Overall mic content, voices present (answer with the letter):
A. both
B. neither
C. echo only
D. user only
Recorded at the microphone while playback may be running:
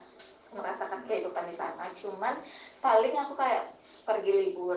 C